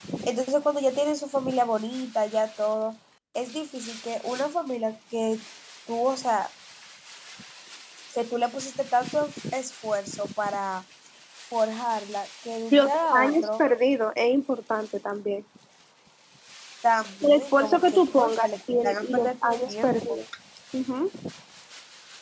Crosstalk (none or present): present